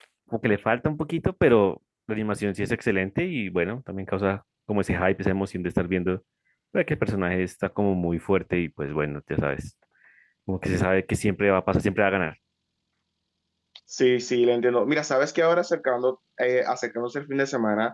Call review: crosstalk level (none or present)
none